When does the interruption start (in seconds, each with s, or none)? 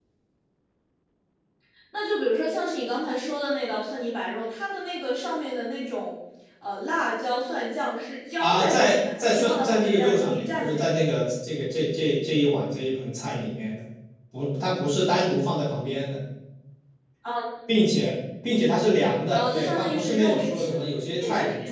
8.4 s